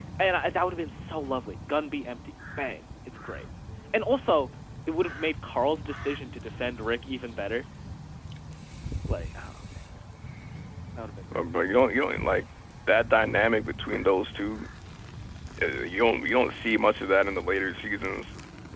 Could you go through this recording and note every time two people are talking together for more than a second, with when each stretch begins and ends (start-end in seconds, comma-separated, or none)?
none